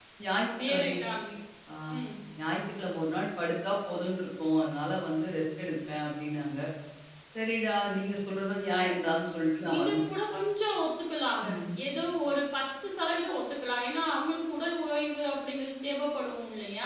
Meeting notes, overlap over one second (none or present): none